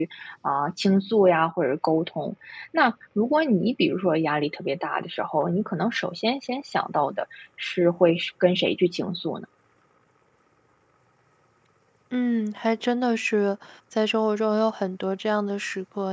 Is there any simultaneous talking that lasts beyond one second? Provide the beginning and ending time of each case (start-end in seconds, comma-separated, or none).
none